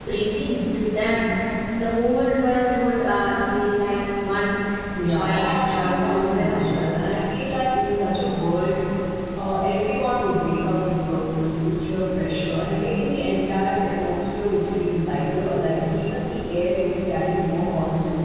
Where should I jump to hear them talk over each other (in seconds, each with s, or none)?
5.0 s